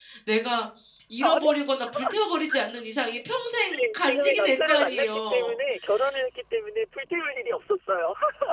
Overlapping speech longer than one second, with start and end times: 3.8-5.5

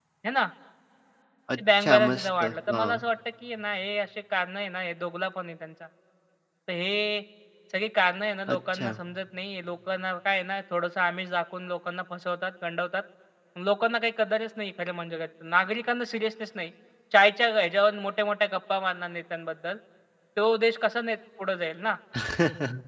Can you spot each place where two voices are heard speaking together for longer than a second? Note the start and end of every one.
1.6-3.0

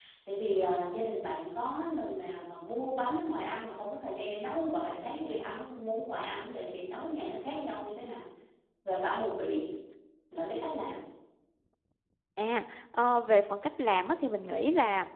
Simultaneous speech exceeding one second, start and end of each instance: none

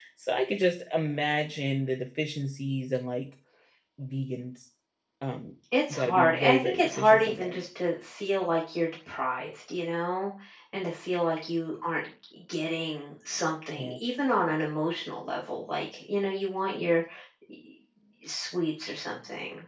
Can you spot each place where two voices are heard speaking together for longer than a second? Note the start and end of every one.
5.9-7.6

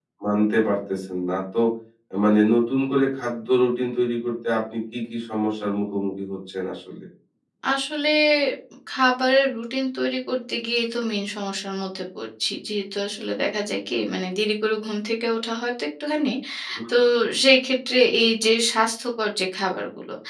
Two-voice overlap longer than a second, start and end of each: none

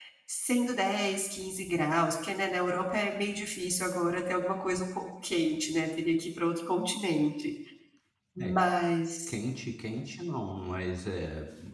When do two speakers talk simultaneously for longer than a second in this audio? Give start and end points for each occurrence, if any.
none

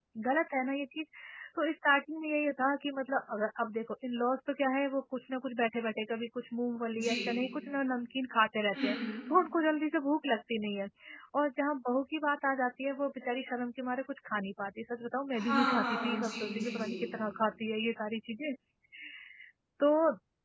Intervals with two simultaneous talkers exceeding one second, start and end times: 15.3-17.0

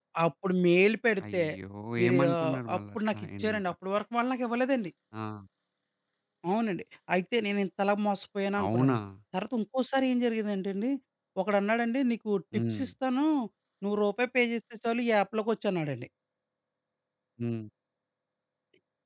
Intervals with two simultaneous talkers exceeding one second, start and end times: 2.1-3.6

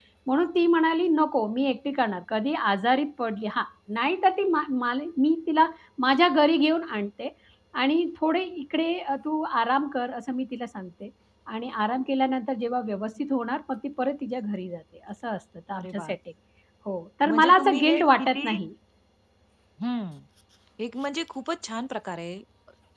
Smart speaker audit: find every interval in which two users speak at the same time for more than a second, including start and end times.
17.2-18.6

